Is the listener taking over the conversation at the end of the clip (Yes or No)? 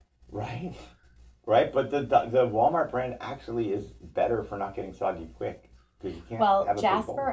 Yes